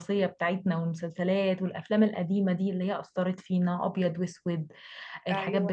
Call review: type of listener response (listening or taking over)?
listening